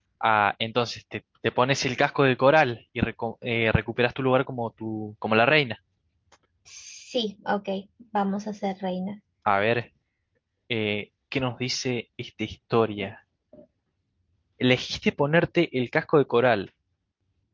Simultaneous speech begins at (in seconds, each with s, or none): none